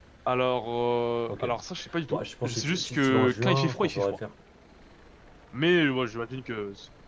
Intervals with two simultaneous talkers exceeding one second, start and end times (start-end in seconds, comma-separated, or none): 2.1-4.2